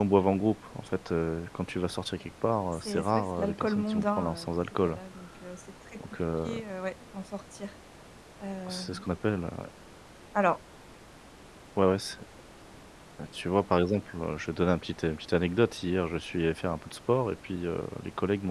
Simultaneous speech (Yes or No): Yes